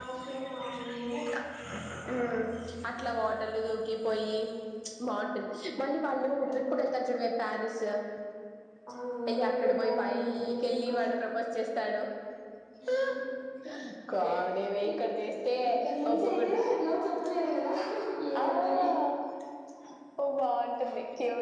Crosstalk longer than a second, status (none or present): present